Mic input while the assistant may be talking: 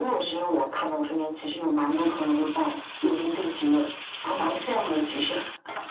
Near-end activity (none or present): none